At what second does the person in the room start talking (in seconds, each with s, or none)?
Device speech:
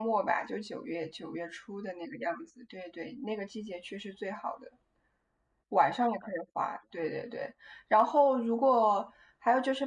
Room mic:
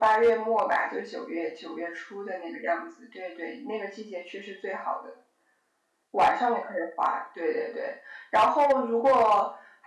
none